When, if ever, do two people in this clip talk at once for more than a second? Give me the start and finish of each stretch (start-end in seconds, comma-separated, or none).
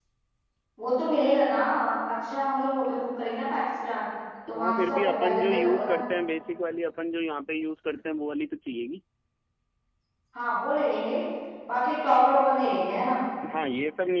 4.6-6.0